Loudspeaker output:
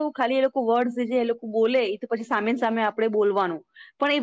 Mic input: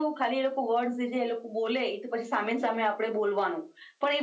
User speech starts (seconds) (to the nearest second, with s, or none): none